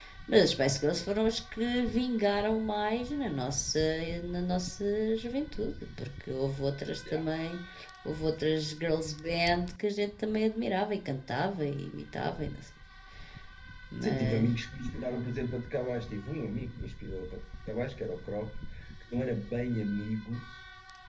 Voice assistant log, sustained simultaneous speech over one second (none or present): none